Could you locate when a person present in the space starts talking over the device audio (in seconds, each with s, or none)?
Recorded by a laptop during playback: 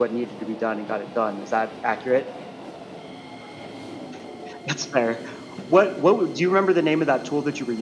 none